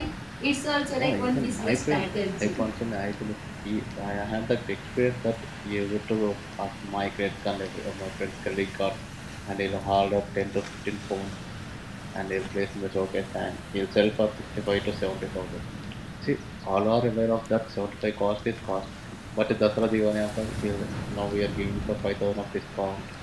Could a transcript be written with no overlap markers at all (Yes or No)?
No